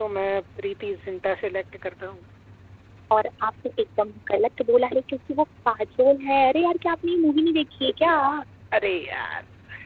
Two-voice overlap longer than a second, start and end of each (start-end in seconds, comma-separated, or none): none